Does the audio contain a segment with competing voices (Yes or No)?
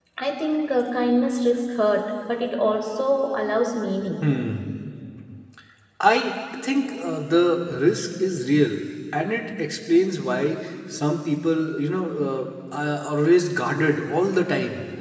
No